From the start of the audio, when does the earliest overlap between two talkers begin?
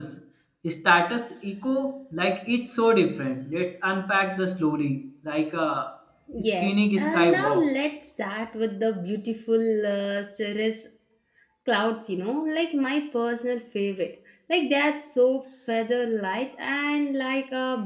6.4 s

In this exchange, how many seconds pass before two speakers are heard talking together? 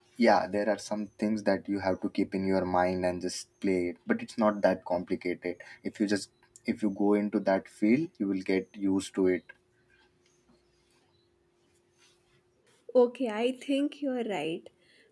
none

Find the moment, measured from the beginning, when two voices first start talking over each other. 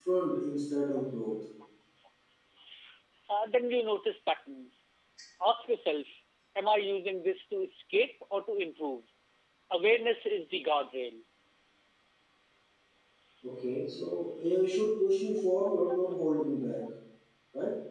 none

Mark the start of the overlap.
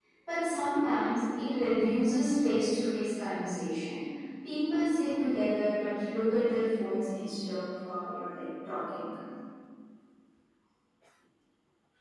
none

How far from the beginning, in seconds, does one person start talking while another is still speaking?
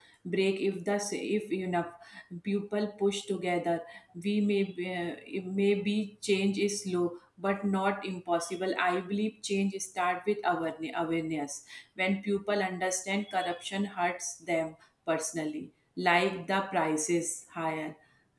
none

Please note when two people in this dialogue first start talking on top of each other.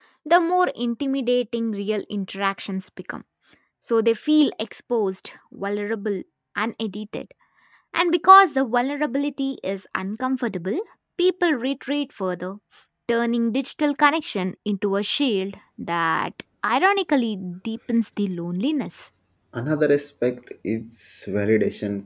none

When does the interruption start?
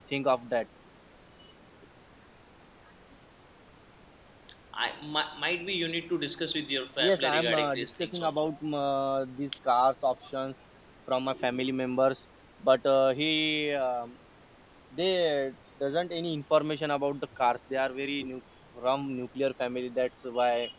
7.0 s

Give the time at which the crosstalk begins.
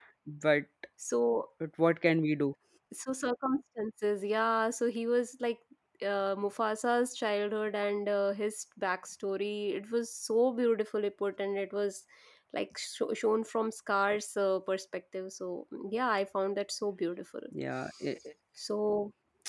none

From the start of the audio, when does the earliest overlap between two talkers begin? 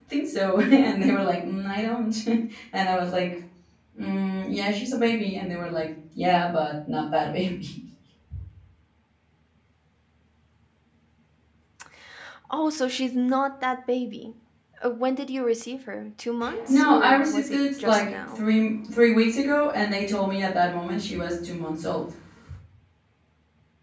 16.7 s

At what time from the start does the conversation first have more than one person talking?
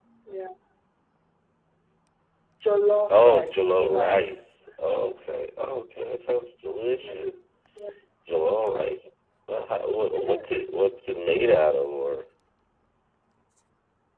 3.1 s

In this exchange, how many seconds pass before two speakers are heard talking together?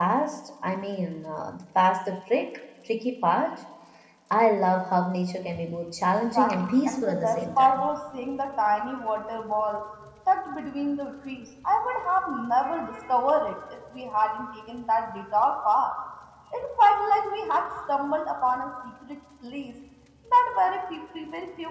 6.3 s

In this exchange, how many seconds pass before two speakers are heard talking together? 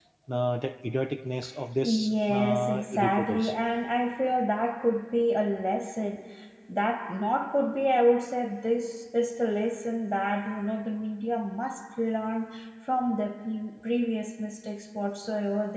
1.8 s

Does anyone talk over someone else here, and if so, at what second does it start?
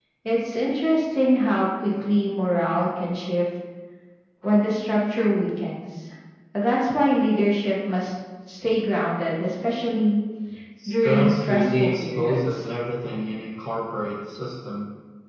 10.9 s

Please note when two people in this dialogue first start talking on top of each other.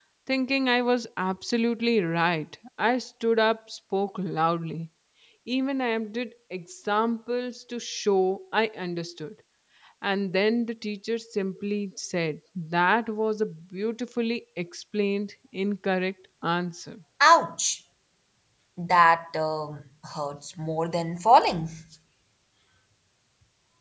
none

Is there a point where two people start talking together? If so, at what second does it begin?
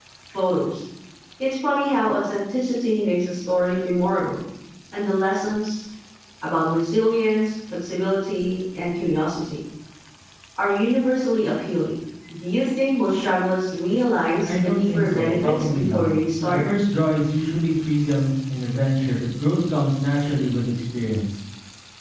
14.4 s

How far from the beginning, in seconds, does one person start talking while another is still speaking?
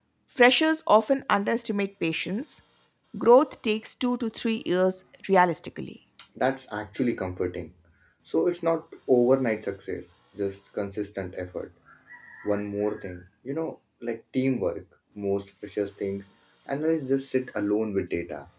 none

